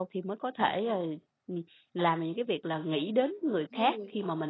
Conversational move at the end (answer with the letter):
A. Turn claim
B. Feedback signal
B